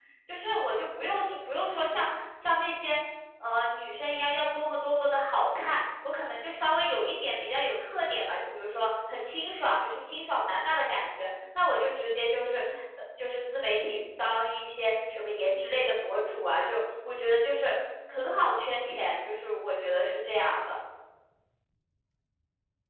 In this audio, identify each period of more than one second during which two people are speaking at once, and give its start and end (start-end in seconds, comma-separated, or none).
none